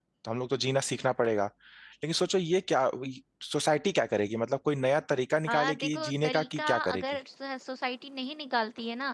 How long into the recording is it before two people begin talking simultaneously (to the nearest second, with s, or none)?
5 s